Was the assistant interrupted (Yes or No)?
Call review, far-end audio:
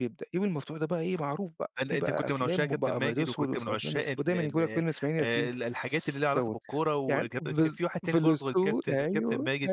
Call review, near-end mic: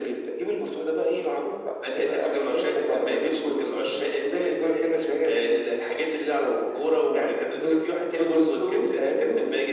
No